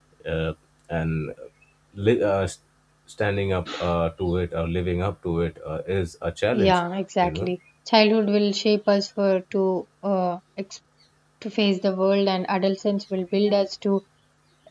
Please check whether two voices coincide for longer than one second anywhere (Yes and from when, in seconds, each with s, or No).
No